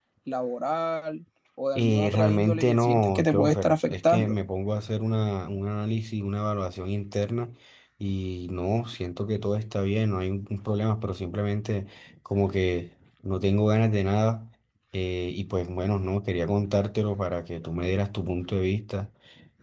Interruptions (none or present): present